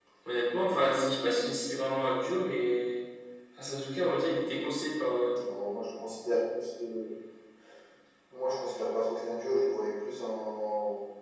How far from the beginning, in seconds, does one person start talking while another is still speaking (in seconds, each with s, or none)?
none